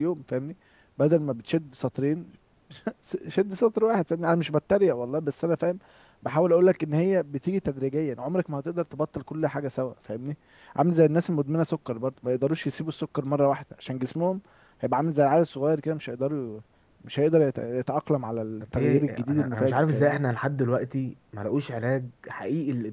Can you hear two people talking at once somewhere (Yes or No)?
Yes